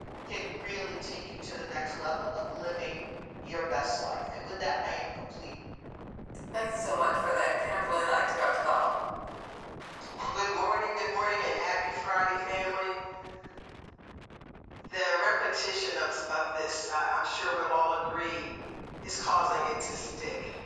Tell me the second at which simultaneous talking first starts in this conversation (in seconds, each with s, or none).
none